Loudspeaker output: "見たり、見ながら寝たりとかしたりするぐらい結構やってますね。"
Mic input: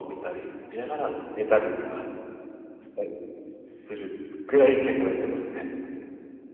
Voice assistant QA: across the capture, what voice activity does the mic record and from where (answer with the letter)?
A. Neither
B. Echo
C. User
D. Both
B